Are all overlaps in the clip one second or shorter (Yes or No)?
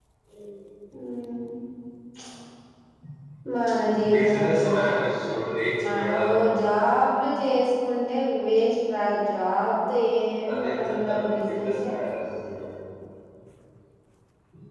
No